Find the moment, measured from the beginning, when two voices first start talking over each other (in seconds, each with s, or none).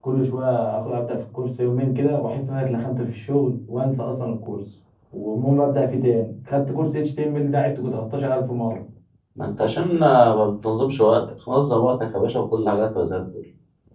none